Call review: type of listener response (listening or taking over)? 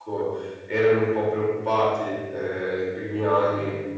listening